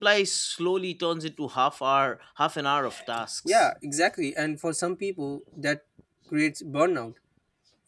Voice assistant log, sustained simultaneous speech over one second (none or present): none